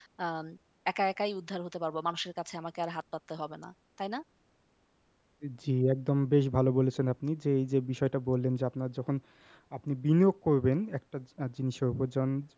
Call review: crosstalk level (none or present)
none